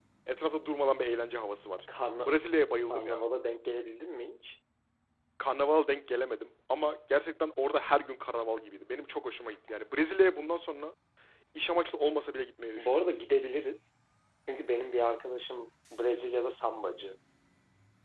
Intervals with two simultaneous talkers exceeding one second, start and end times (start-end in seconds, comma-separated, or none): none